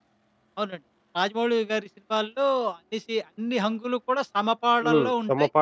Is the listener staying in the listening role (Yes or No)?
No